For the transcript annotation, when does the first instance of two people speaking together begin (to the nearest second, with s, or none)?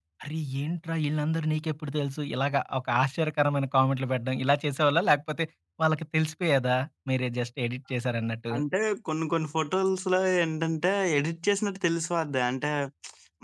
none